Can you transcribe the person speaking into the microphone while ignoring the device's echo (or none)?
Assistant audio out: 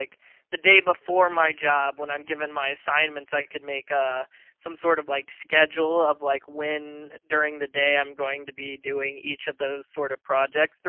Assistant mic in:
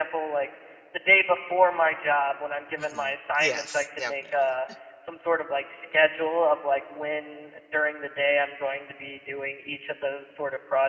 Mhm. Yes, definitely.